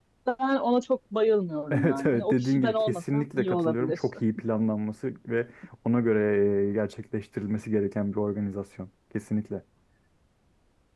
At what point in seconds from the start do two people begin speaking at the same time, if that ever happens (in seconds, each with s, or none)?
1.7 s